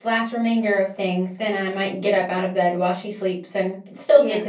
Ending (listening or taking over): listening